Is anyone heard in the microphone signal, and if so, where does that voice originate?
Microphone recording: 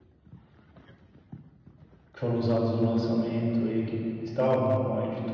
user only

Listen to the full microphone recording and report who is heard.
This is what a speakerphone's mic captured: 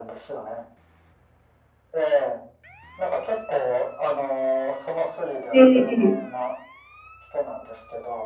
both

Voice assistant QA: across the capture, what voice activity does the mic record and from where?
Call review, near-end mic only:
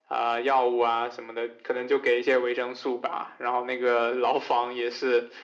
echo only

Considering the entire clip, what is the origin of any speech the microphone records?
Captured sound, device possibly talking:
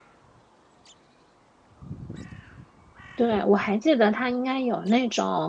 user only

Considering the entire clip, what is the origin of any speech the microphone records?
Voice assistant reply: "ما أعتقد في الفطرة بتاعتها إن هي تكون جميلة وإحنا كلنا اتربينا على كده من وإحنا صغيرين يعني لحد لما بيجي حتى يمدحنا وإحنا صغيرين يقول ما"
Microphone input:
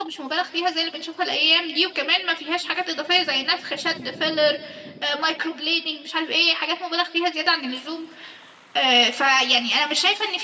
user only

